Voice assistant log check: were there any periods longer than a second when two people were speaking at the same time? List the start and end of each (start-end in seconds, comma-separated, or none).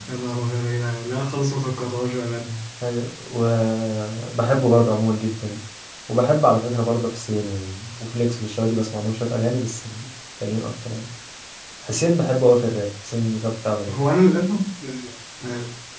none